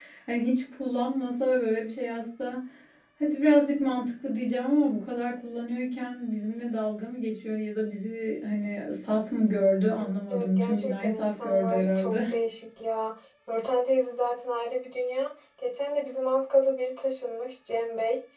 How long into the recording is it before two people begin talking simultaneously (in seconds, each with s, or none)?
10.0 s